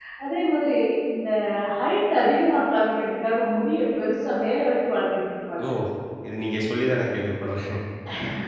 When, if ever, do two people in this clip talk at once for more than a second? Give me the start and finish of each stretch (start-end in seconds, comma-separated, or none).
none